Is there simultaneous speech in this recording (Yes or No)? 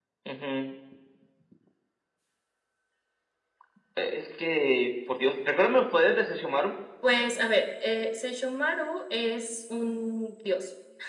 No